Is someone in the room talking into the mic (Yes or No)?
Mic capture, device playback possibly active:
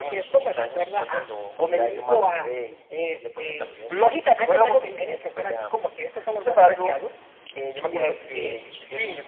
No